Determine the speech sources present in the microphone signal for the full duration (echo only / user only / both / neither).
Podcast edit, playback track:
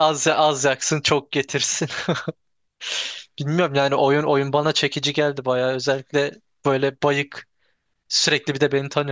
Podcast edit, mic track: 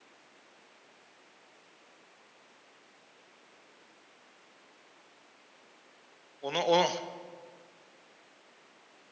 user only